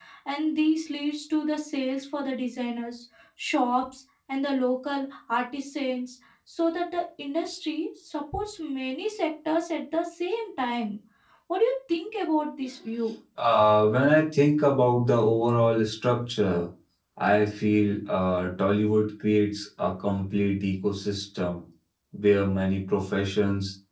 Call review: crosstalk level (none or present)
none